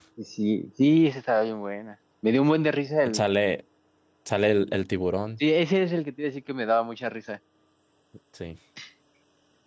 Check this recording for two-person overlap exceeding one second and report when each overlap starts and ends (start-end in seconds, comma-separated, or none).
none